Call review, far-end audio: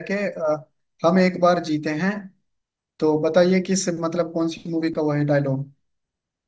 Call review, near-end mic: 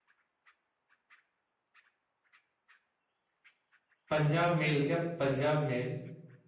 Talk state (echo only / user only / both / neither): user only